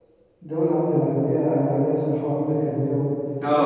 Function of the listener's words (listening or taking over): taking over